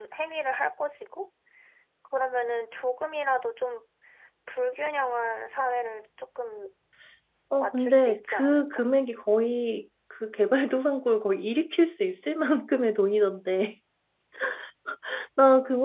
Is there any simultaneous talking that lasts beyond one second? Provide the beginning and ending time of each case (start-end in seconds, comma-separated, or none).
7.6-8.8